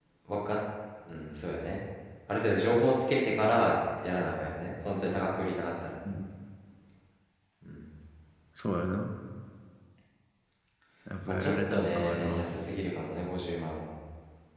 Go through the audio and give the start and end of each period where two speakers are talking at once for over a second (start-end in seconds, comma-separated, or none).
11.3-12.5